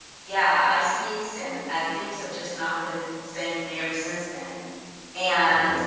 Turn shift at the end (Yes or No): No